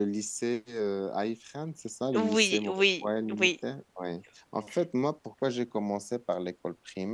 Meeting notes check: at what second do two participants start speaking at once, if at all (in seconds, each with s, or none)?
2.1 s